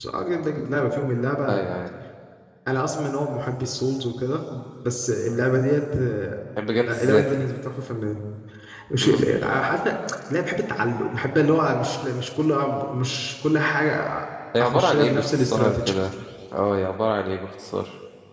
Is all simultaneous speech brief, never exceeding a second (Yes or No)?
No